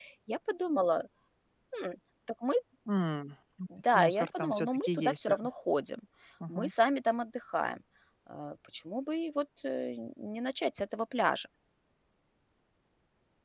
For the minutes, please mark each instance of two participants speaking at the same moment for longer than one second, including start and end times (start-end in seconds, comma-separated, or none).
4.0-5.3